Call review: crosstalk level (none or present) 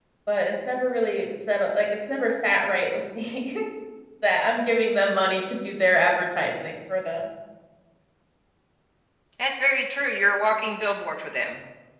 none